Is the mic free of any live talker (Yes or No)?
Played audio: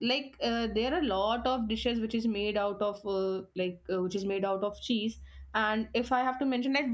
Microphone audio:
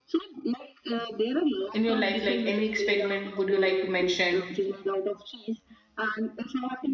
No